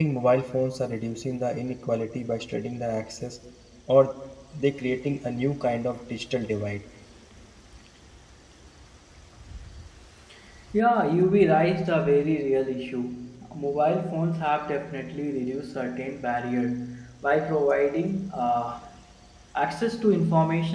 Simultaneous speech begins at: none

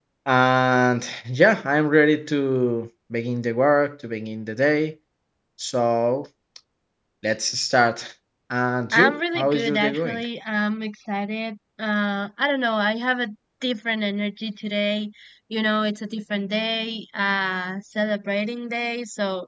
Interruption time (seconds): 8.9 s

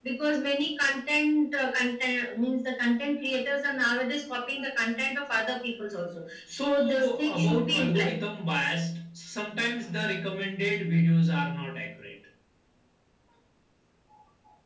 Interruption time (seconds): 6.5 s

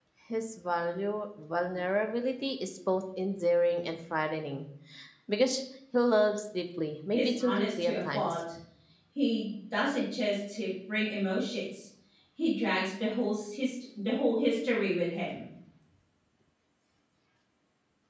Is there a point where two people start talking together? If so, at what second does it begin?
7.1 s

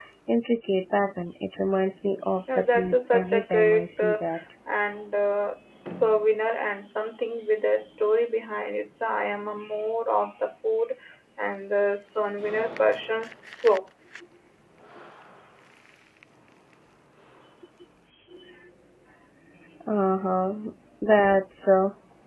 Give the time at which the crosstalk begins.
2.5 s

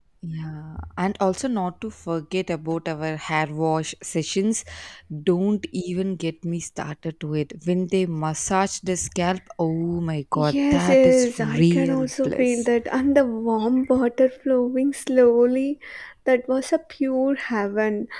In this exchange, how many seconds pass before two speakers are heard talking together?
10.4 s

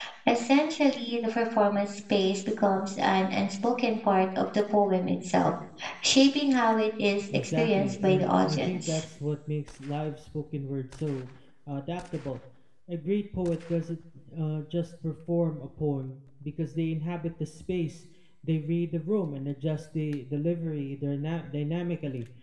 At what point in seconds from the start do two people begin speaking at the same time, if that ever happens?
7.3 s

